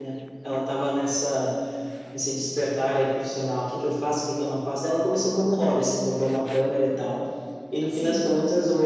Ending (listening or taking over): listening